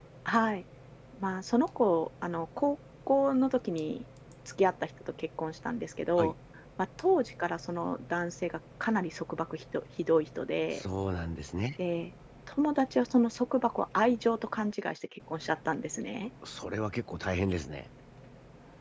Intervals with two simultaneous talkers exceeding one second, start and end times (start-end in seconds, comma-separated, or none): none